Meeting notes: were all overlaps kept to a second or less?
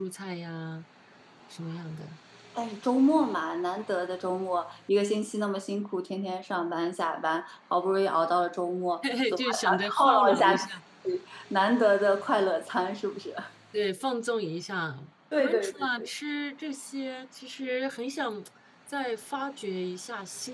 No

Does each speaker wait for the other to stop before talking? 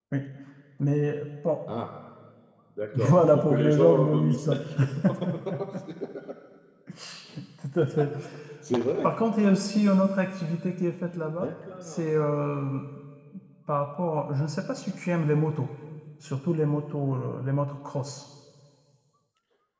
No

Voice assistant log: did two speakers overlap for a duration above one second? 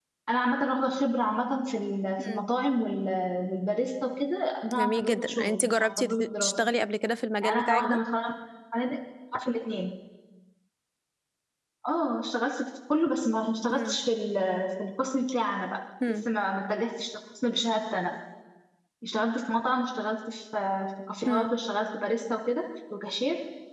Yes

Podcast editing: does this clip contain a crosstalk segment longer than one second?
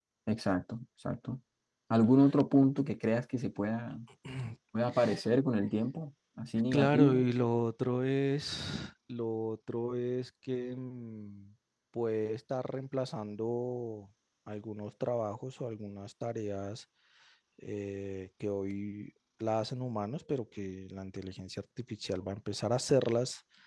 No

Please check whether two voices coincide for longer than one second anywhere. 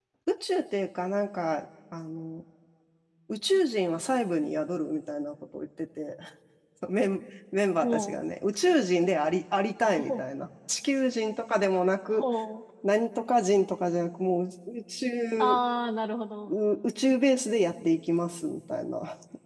No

